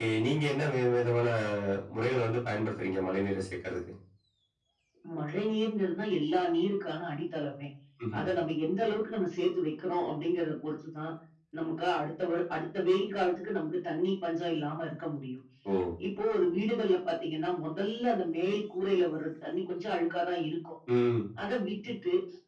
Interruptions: none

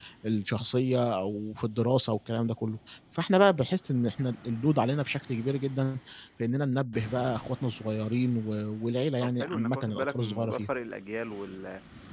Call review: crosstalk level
present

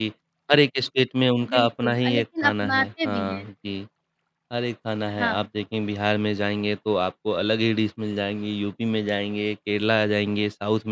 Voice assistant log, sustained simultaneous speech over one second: present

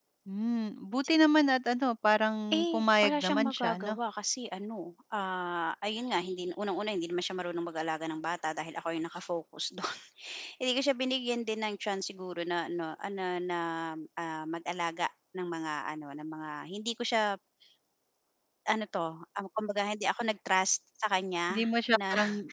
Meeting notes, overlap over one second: present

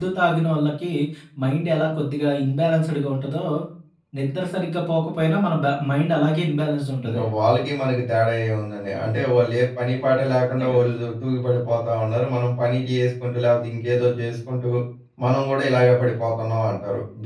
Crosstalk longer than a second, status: none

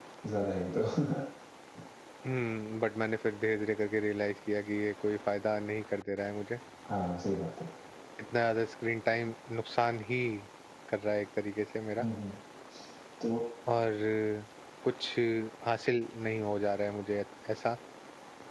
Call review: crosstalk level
none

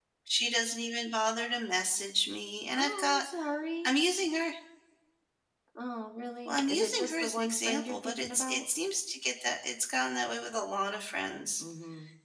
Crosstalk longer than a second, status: present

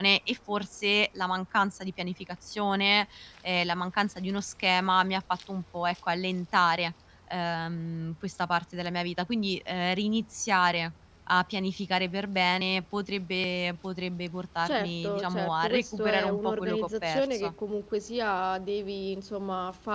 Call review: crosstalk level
present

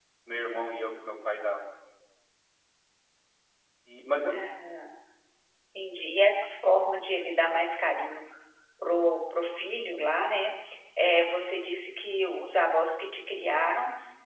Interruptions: none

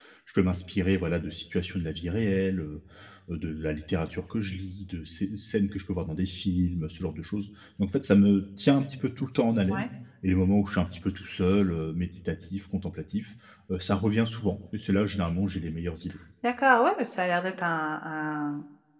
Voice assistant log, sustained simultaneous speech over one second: none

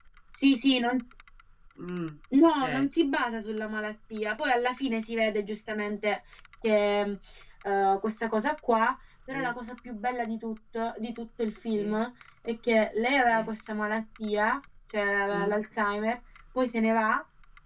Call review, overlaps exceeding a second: none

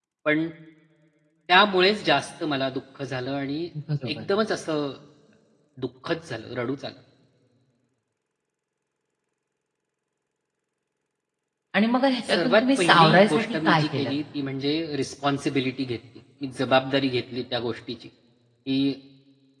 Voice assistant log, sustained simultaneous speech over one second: present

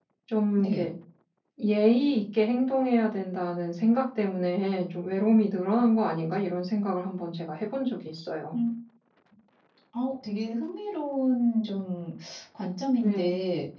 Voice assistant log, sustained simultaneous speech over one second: none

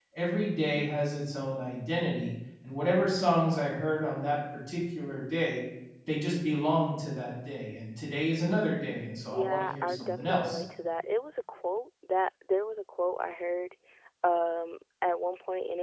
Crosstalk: present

